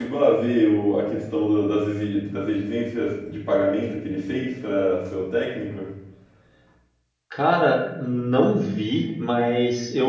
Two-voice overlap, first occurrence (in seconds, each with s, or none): none